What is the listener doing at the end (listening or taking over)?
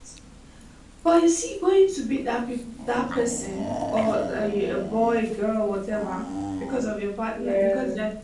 listening